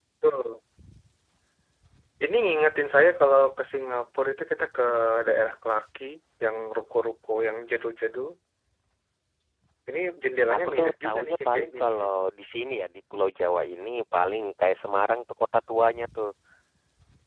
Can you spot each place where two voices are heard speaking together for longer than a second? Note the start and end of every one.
10.5-12.1

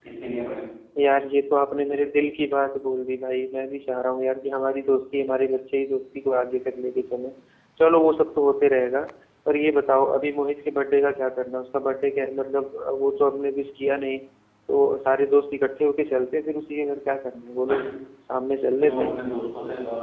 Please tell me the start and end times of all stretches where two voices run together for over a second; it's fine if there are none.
none

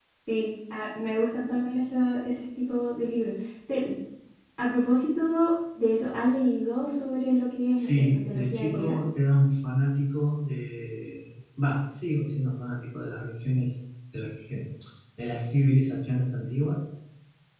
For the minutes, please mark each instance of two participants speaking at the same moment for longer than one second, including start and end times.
7.7-9.0

